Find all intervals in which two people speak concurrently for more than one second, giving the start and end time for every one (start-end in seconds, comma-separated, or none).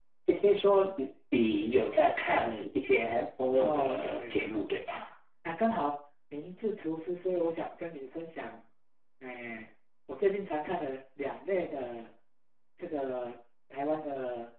3.6-4.9